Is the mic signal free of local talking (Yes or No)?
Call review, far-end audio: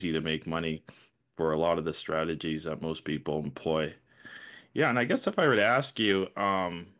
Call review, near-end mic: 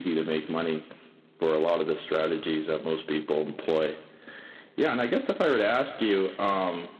Yes